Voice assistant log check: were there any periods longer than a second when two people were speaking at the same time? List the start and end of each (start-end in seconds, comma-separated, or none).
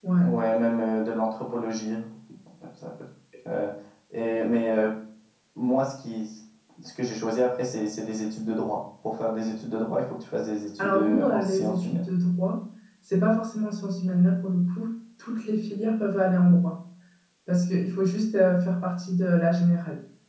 10.8-12.0